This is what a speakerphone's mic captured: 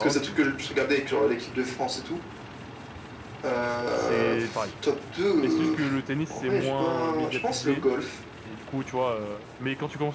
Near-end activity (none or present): present